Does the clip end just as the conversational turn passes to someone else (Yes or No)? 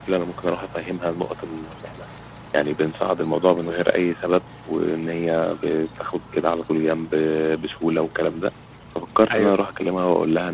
No